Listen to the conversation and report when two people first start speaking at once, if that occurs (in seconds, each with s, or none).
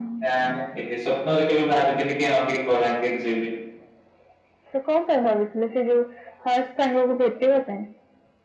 none